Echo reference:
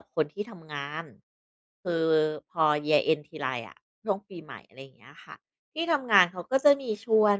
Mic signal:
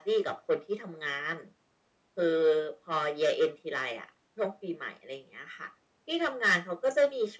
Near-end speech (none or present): none